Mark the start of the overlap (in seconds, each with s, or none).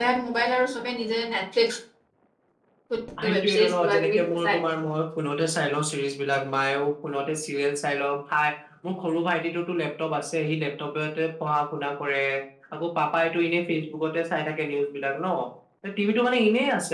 3.3 s